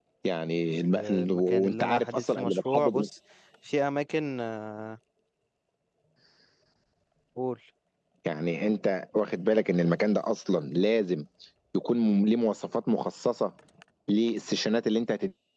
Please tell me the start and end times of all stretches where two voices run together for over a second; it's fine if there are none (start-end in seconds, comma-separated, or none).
0.9-3.0